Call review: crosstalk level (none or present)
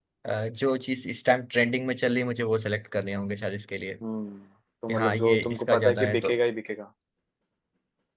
present